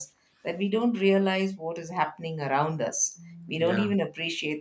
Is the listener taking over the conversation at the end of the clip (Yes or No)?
No